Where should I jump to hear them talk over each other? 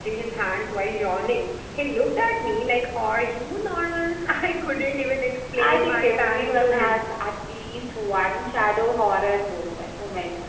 6 s

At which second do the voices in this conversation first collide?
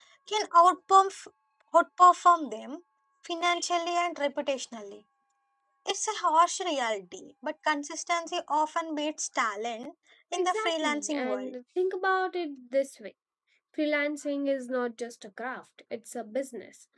10 s

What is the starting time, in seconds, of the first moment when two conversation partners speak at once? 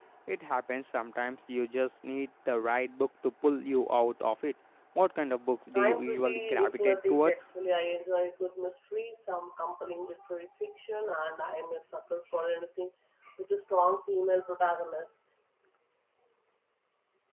6 s

